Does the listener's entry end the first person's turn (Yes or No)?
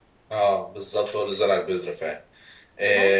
No